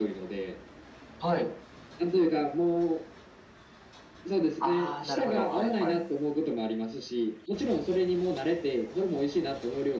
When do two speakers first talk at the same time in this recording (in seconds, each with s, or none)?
4.6 s